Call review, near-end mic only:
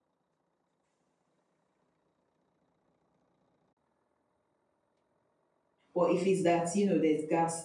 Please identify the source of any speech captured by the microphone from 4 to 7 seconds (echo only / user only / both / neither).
user only